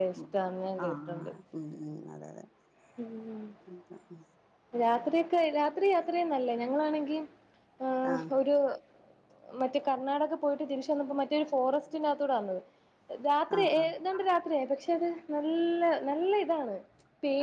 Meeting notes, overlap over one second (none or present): none